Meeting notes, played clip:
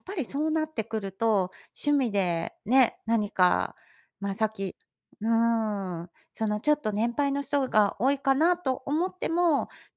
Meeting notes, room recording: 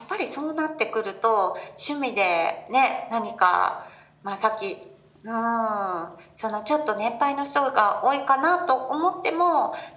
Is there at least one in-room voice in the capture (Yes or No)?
No